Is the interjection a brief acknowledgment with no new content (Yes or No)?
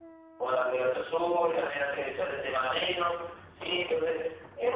Yes